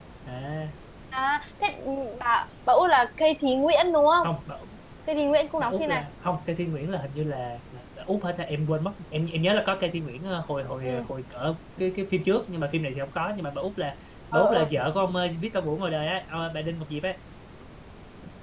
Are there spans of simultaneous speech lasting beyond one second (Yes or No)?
No